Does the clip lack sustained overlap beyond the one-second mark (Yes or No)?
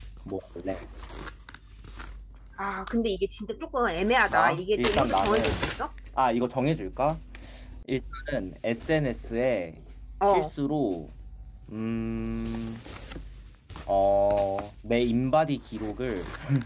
No